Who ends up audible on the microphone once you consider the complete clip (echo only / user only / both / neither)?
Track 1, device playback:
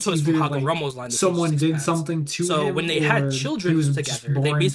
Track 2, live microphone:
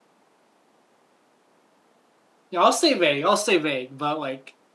user only